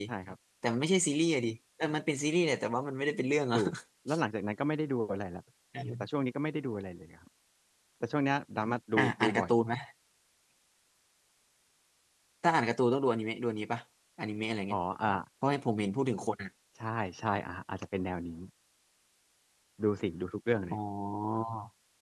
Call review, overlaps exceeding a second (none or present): none